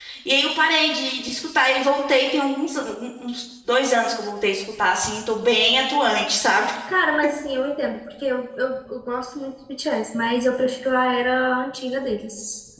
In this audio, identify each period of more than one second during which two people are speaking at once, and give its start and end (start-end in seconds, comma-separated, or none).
none